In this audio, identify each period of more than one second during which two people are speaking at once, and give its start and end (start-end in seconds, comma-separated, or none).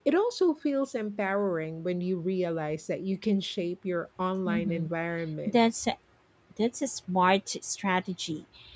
none